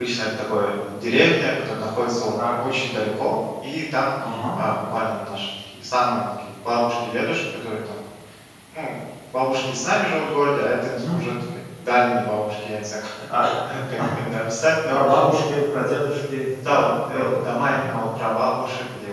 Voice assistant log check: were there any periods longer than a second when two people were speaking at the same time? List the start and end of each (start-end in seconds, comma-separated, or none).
16.7-17.9